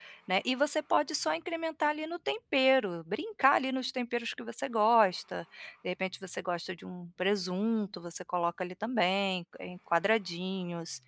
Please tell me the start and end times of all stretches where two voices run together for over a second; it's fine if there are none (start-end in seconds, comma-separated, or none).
none